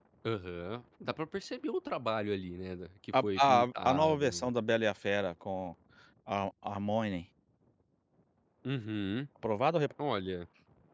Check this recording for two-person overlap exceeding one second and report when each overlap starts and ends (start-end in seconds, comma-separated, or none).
3.2-4.5